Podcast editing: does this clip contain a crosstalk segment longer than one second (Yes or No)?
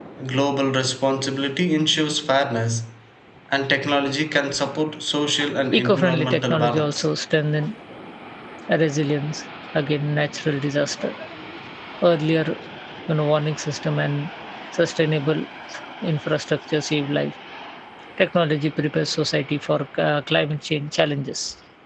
Yes